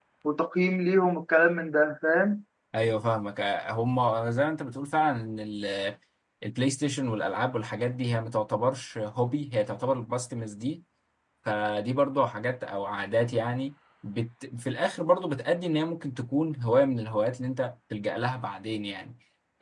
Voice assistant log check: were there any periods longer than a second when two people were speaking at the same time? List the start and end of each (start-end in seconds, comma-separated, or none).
none